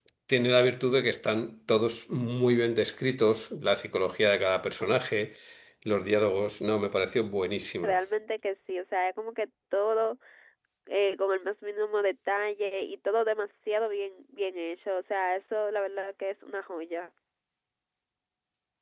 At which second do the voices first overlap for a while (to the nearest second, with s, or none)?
none